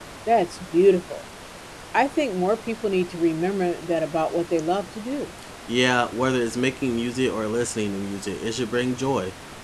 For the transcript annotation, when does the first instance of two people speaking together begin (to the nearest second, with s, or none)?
none